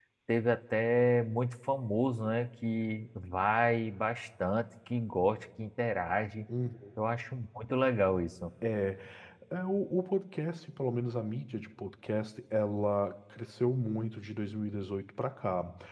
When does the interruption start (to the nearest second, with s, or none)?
none